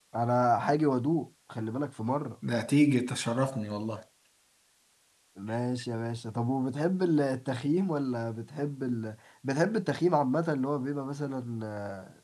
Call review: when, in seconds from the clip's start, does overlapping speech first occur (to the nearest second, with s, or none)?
none